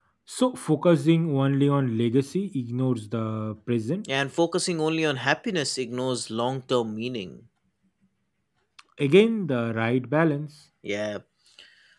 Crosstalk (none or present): none